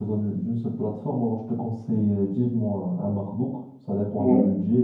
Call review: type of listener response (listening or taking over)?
listening